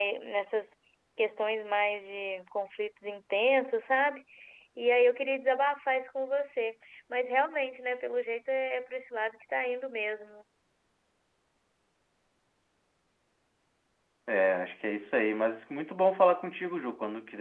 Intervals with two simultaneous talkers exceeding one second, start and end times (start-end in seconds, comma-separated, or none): none